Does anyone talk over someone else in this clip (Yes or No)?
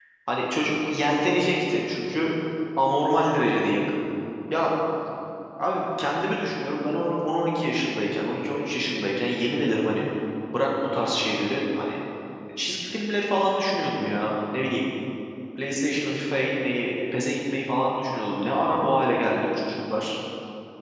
No